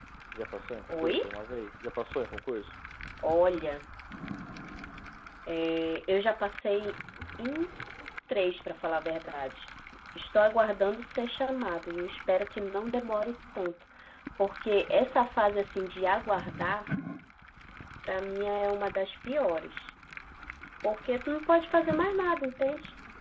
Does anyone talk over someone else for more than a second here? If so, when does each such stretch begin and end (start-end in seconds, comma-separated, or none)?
none